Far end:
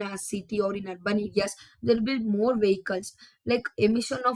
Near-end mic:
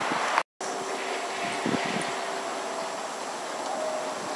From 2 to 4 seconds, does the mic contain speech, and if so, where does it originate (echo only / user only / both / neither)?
neither